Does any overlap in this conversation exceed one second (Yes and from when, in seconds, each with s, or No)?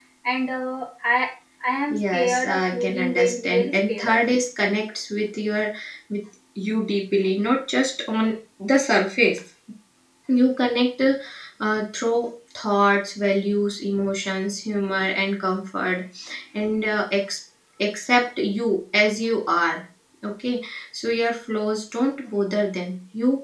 Yes, from 1.9 s